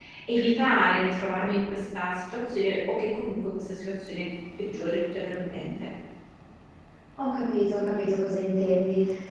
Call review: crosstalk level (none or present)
none